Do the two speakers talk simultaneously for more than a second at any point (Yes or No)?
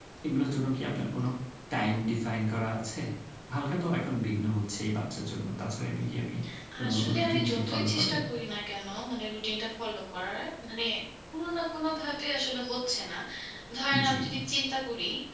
Yes